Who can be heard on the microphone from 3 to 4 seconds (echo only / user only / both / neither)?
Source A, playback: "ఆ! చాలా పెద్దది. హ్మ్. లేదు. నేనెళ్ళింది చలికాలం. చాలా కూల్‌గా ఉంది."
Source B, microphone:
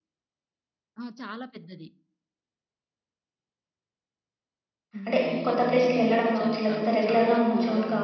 neither